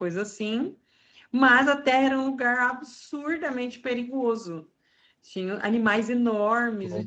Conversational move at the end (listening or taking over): listening